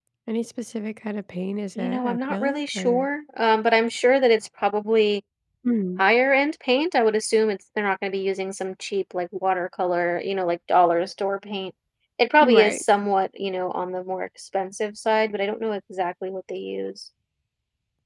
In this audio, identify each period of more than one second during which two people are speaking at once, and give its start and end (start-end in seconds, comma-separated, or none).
1.8-3.1